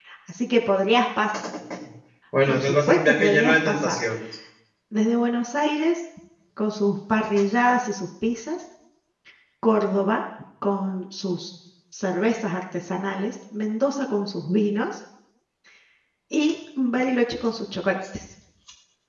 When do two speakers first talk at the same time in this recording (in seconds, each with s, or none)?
2.5 s